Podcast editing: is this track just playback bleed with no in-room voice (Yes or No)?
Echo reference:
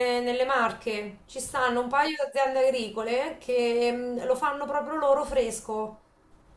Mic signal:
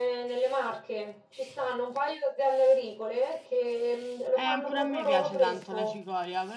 No